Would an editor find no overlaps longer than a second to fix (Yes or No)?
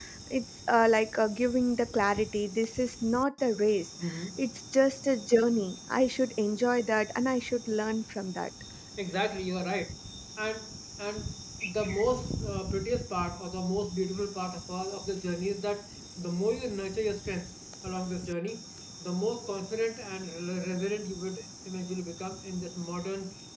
Yes